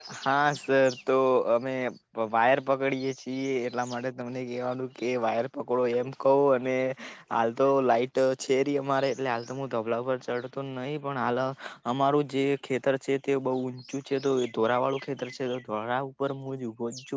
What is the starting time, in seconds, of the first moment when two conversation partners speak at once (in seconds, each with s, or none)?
none